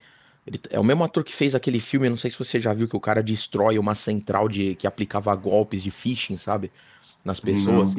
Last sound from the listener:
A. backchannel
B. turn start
A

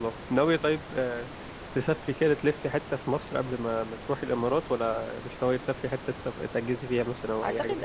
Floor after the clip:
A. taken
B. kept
A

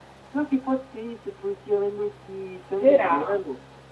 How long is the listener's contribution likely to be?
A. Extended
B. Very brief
B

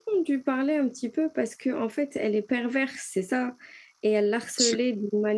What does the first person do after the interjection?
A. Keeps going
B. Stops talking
A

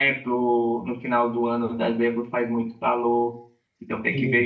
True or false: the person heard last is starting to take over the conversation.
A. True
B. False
B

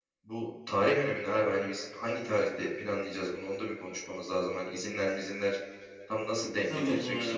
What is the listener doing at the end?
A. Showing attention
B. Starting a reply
B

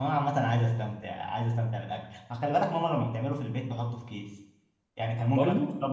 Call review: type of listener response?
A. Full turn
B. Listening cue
B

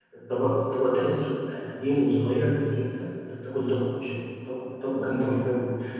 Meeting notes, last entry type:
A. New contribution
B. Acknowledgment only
B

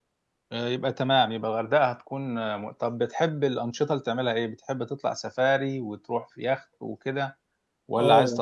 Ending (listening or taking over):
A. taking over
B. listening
A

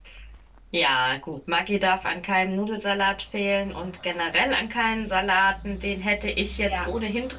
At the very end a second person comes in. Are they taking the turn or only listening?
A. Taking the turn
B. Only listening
B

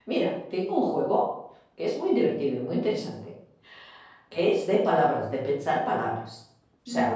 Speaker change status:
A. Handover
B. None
B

